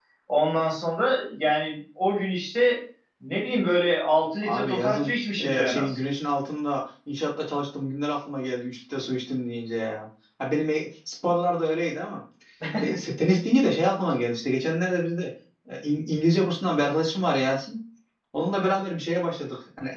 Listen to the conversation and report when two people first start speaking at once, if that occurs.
4 s

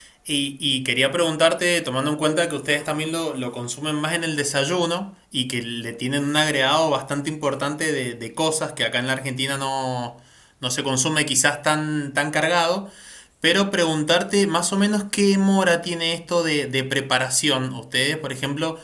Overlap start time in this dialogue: none

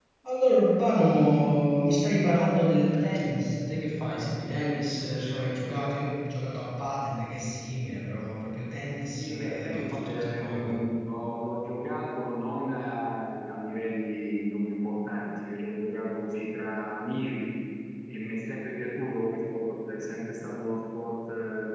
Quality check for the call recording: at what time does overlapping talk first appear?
9 s

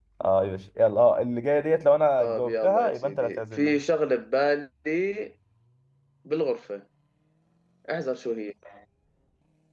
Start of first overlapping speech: 2 s

